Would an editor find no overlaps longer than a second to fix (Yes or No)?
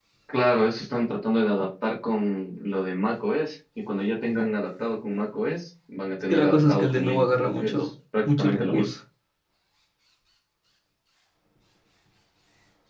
No